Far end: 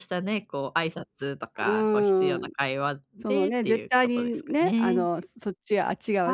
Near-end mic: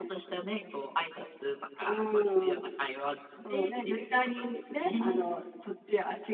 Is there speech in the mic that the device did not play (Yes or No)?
No